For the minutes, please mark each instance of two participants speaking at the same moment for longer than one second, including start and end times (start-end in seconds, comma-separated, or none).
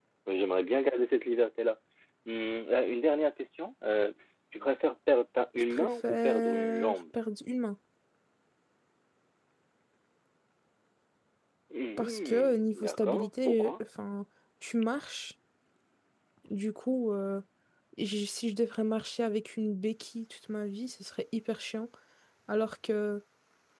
5.6-7.0, 12.0-13.7